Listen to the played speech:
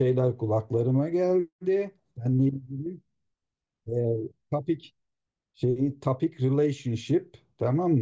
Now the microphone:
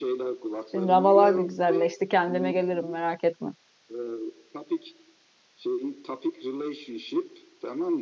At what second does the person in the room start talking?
0.7 s

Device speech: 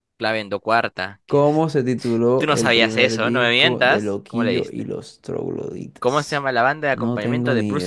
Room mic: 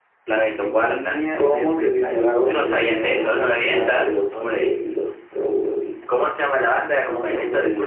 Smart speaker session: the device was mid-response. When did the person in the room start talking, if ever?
0.6 s

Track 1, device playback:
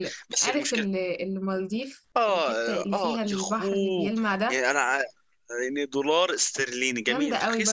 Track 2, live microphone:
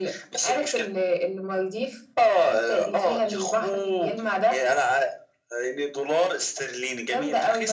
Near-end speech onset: none

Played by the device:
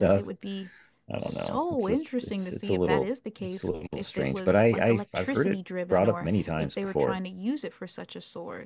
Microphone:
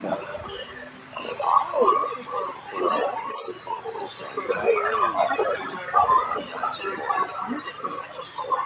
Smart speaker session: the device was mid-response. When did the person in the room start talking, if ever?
none

